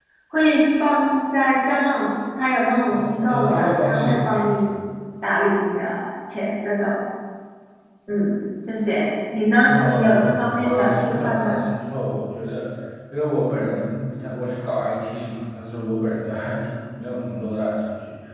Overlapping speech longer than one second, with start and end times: 2.9-4.6, 9.7-11.6

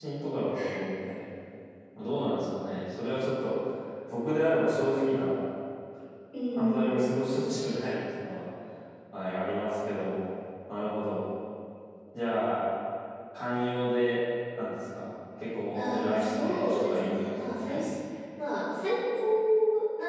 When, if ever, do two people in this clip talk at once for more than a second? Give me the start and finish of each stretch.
15.7-17.8

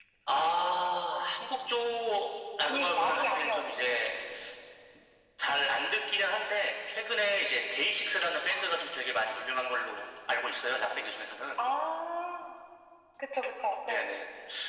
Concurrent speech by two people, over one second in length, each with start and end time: 2.6-3.9

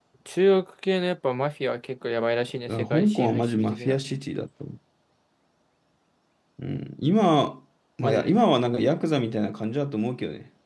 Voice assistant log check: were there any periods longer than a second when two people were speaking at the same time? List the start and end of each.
2.7-4.0

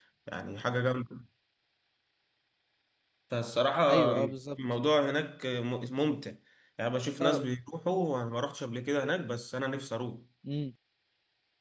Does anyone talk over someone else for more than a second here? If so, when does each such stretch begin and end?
none

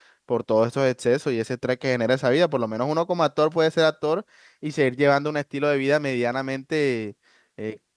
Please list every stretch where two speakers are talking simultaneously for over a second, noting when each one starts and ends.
none

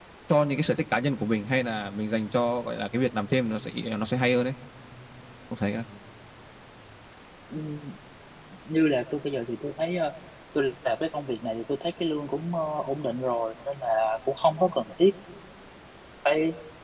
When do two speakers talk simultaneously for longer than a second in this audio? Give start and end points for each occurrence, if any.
none

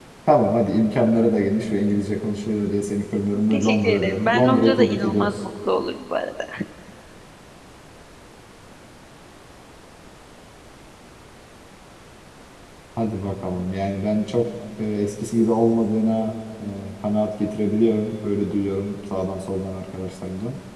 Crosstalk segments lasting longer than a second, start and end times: 3.5-5.3

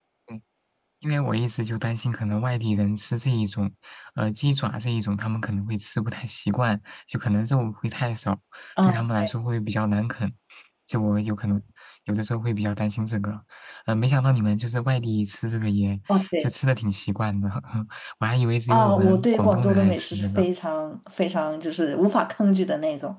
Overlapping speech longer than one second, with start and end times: 18.7-20.5

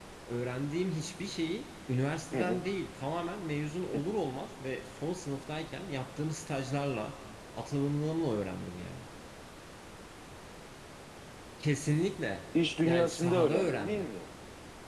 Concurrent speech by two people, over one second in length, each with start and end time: 12.8-14.1

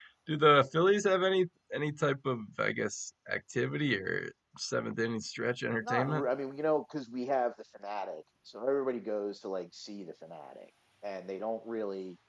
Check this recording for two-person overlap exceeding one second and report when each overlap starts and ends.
none

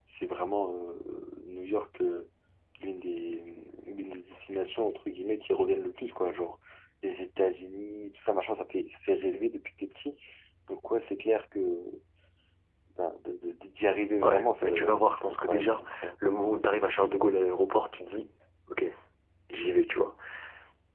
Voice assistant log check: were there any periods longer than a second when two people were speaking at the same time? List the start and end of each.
14.2-16.1

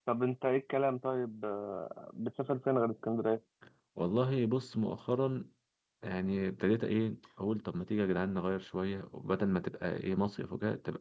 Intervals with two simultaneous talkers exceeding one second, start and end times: none

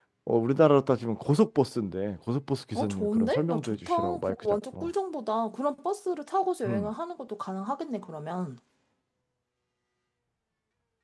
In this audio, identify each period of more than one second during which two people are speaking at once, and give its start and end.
2.8-4.9

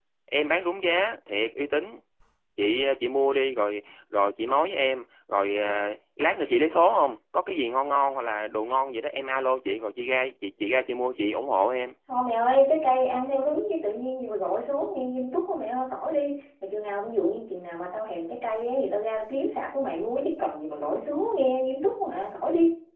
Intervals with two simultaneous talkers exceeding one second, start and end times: none

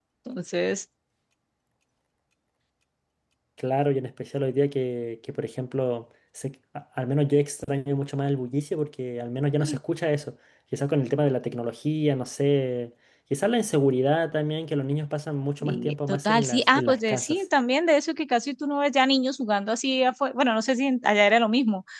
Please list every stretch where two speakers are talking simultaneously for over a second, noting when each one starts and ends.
15.6-17.4

